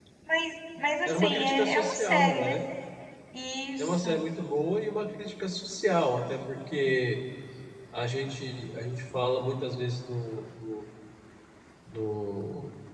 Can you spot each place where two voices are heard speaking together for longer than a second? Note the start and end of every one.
1.1-2.5

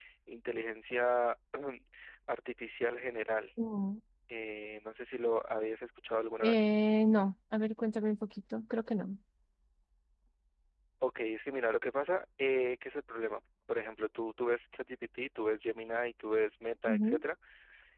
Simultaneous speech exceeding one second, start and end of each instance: none

